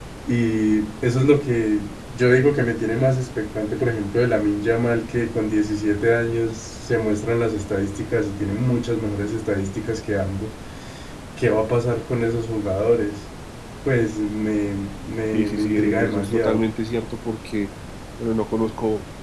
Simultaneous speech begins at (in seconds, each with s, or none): 15.3 s